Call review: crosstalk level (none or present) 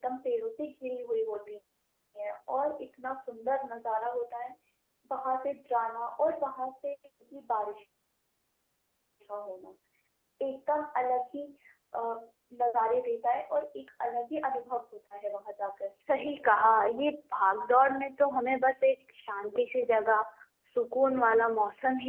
none